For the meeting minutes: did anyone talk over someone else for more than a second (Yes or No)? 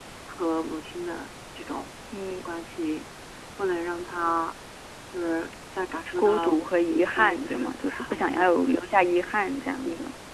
Yes